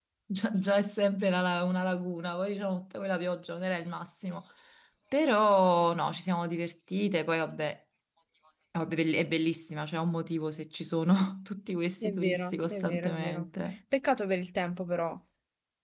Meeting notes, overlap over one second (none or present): present